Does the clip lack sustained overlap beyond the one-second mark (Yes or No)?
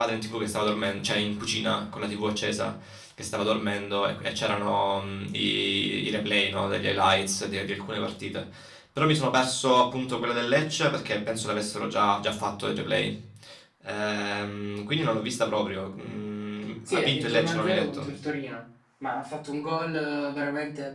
No